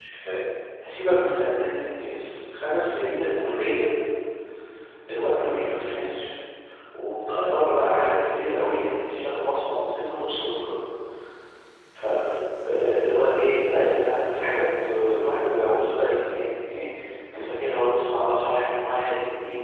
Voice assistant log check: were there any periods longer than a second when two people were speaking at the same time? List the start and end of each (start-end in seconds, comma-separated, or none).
none